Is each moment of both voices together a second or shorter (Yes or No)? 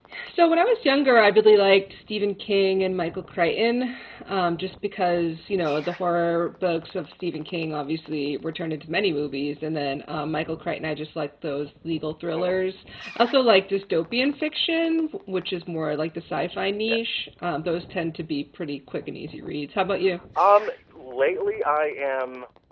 Yes